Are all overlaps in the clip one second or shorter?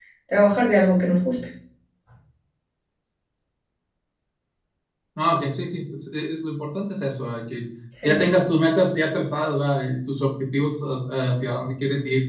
Yes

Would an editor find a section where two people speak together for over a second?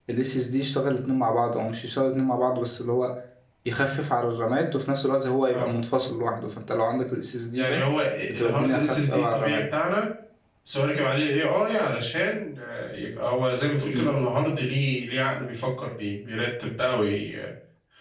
Yes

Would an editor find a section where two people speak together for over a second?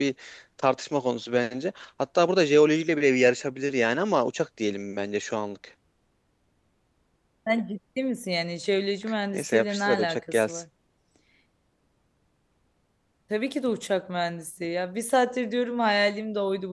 Yes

